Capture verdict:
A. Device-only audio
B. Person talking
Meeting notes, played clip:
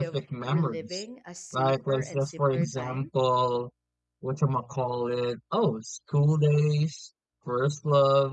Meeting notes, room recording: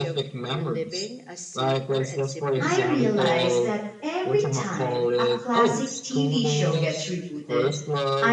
B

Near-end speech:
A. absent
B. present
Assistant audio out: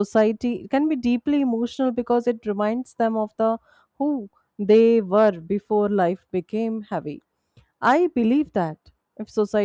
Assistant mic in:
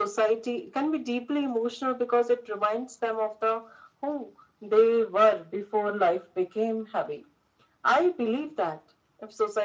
A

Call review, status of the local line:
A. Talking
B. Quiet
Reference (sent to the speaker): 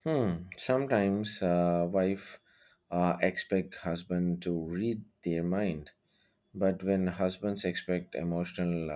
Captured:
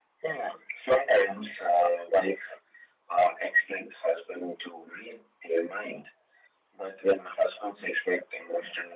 B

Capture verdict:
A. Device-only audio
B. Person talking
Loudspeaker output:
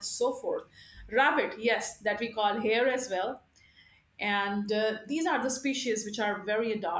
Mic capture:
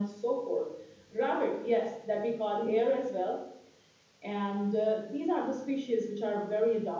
A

